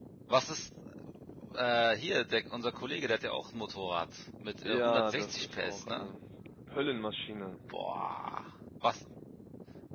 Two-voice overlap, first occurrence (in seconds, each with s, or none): 4.6 s